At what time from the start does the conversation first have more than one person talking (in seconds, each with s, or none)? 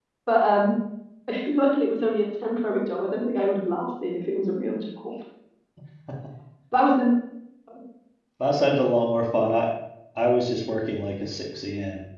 none